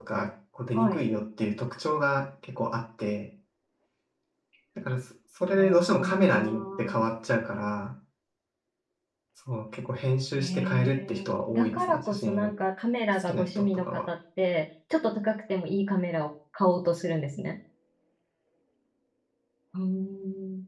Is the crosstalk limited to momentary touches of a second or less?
No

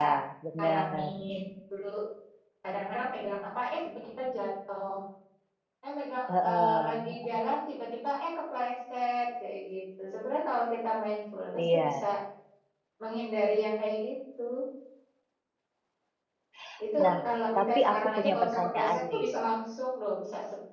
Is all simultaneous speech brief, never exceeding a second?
No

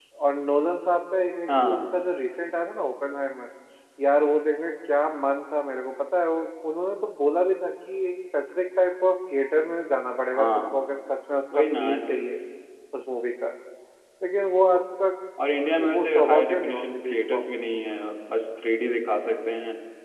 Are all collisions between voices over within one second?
No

